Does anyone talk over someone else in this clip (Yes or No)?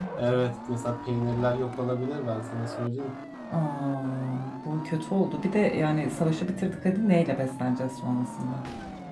No